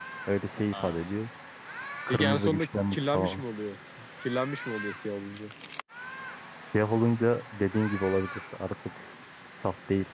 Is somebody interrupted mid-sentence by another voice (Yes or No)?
Yes